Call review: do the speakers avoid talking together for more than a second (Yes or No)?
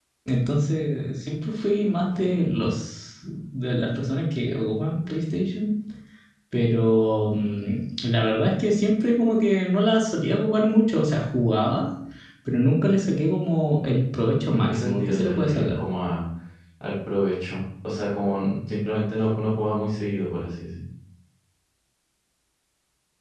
No